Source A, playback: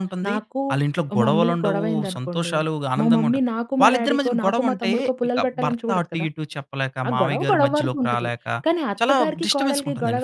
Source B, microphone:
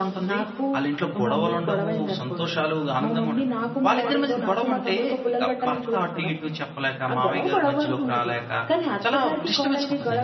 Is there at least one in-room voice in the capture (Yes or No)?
No